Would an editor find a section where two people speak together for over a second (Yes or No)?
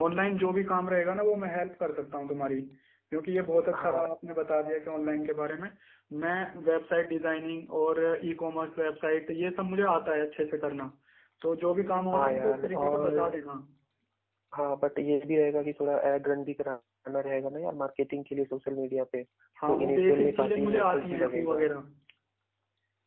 Yes